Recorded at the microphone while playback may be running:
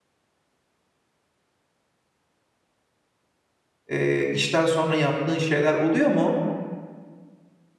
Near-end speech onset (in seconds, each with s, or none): 3.9 s